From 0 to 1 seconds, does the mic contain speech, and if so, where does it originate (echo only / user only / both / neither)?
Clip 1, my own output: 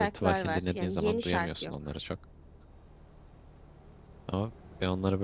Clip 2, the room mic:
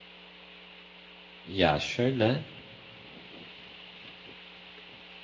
neither